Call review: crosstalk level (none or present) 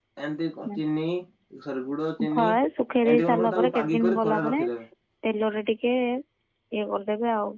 present